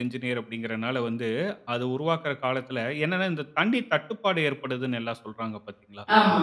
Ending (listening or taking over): listening